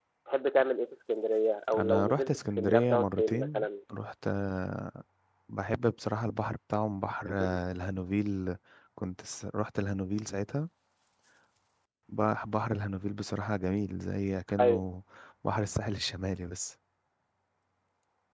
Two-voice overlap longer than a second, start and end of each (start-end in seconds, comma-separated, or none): 1.8-3.6